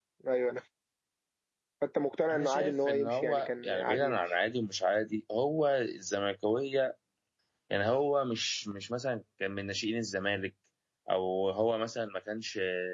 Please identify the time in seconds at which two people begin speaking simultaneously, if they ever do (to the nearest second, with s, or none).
2 s